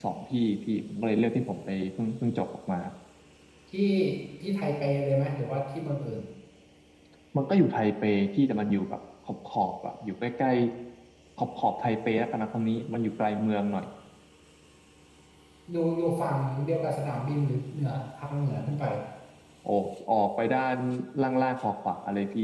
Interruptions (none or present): none